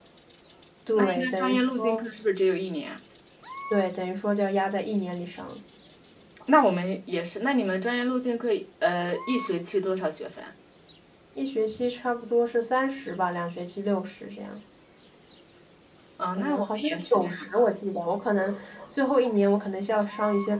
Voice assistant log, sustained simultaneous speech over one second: present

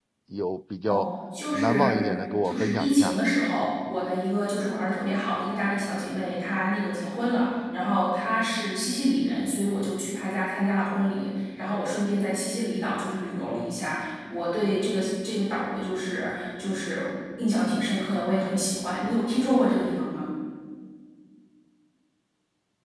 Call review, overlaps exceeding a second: present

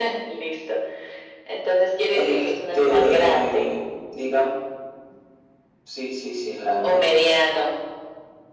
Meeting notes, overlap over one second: present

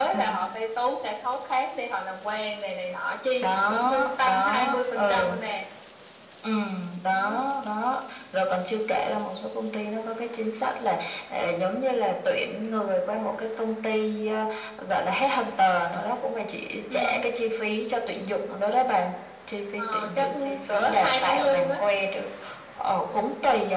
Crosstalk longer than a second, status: present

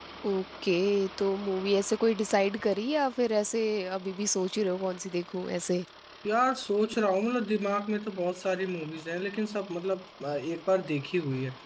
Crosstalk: none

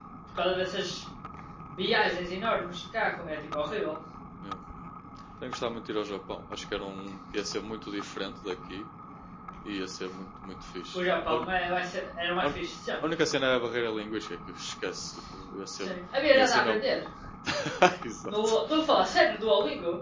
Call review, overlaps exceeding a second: none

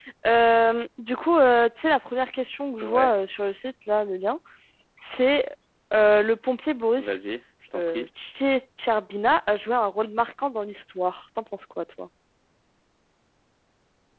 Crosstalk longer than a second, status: none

